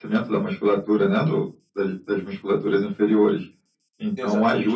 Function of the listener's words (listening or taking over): listening